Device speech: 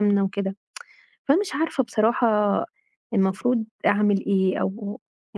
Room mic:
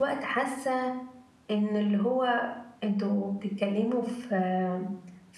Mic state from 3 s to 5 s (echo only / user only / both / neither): user only